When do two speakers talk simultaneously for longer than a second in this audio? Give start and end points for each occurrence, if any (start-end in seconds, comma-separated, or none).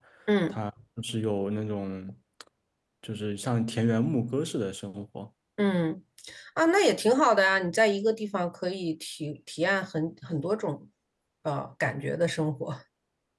none